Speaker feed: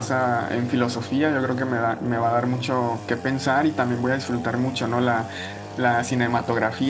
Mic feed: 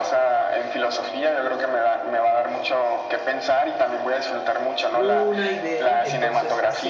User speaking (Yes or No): Yes